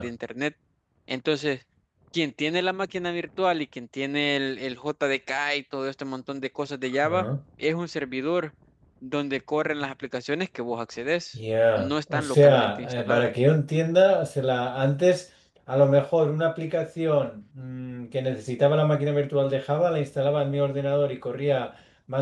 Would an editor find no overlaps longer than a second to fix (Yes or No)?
No